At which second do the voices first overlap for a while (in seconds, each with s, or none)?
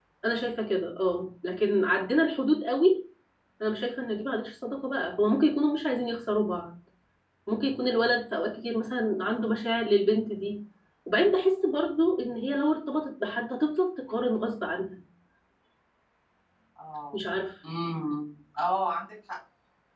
none